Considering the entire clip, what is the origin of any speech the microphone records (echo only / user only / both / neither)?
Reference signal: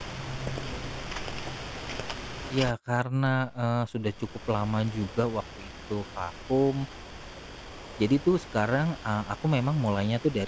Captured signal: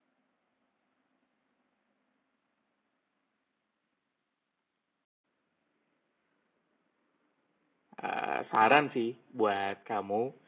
user only